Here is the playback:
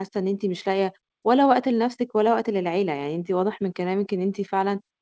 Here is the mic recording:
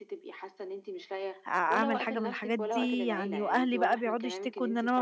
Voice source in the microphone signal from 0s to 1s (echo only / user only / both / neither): echo only